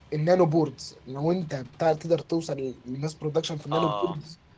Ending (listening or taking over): listening